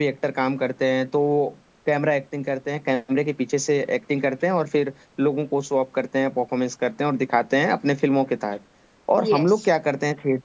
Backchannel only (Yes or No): Yes